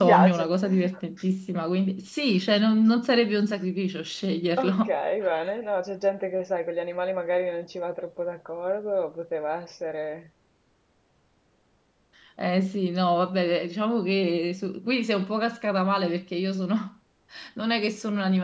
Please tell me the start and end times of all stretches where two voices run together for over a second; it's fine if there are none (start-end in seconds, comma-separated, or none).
none